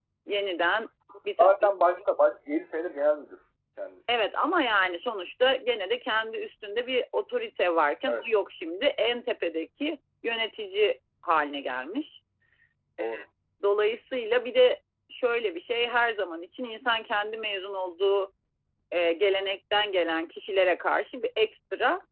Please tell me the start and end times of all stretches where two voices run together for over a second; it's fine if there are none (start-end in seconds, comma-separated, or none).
none